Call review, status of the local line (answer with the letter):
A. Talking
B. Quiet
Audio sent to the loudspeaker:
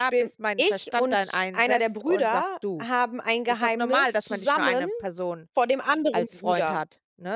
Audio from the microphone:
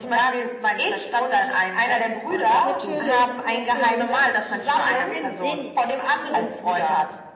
A